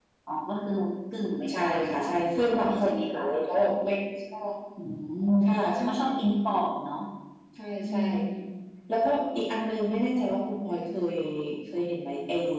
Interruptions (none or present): present